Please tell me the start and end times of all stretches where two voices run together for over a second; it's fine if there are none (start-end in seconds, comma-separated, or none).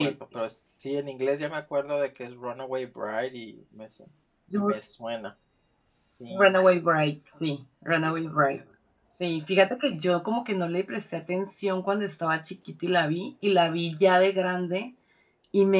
none